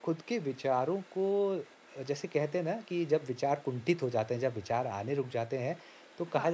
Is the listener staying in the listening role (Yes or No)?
Yes